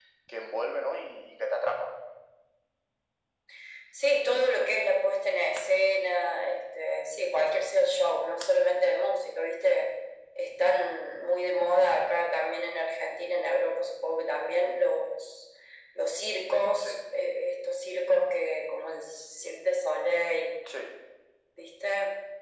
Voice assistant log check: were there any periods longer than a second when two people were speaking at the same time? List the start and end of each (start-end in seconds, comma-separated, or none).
none